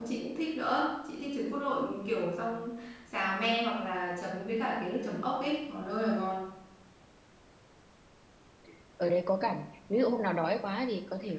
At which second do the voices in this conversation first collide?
none

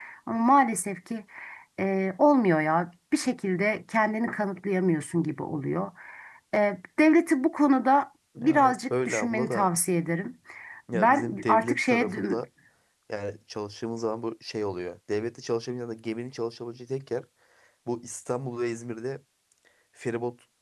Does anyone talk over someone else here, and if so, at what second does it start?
8.4 s

